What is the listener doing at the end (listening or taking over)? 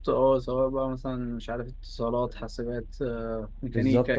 taking over